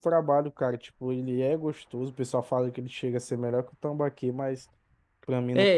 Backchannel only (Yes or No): No